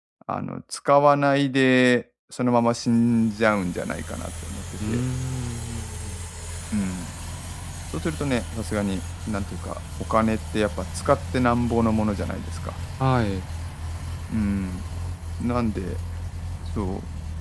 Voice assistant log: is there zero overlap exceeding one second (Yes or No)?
Yes